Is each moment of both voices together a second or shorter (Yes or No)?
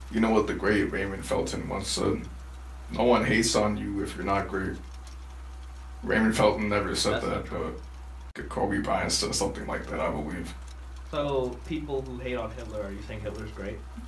Yes